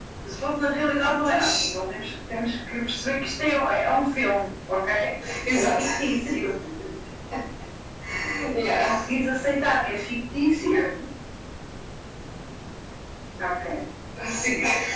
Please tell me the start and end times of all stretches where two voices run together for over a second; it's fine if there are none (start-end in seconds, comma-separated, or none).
none